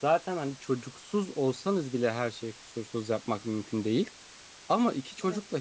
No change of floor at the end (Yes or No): Yes